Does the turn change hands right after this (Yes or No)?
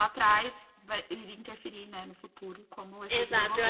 Yes